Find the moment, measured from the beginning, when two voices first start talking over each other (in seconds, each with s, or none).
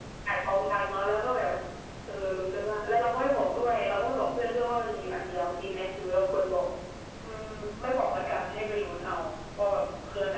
none